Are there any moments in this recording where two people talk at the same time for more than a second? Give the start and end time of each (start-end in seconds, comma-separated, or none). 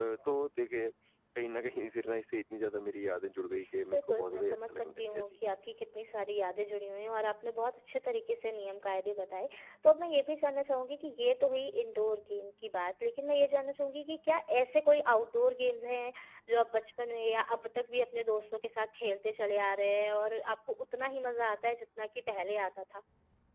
3.9-5.3